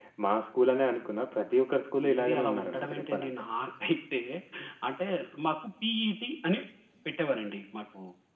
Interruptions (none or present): present